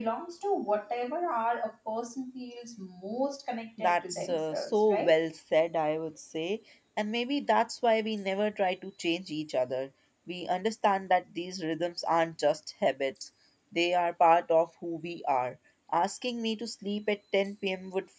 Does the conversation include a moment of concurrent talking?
Yes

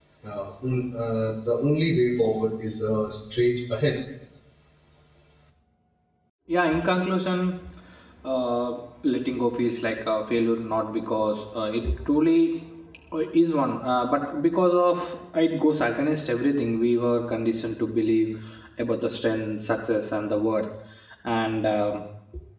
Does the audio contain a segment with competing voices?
No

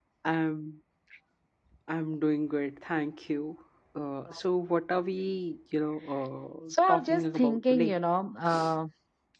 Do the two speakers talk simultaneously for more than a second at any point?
Yes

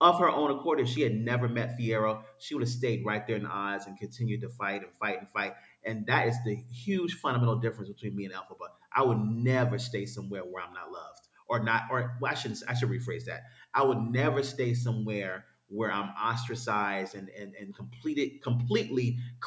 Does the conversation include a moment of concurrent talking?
No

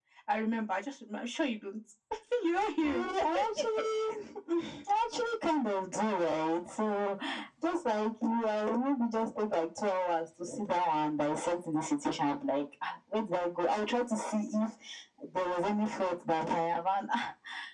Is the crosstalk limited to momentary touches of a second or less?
Yes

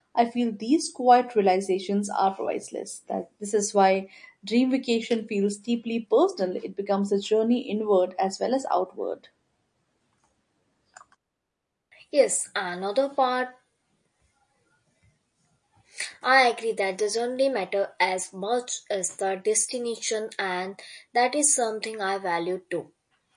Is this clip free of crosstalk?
Yes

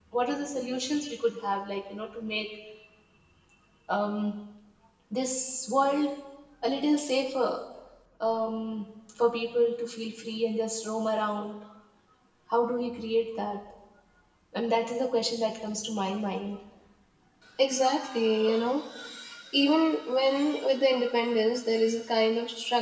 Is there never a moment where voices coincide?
Yes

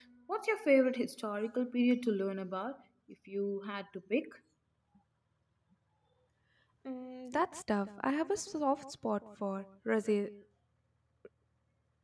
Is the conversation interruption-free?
Yes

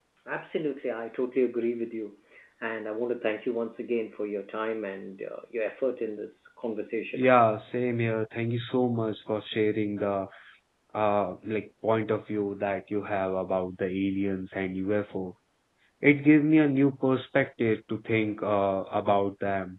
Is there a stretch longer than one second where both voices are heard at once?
No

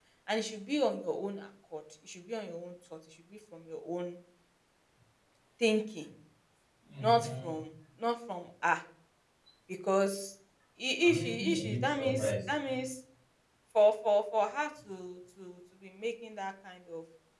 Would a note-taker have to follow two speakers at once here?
Yes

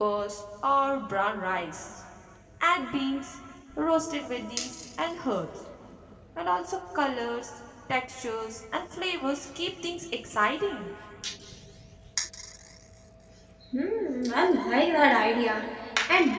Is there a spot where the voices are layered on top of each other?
No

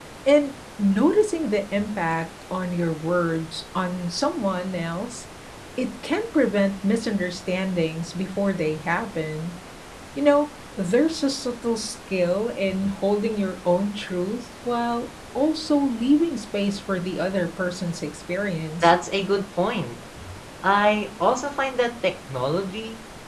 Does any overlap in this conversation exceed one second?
No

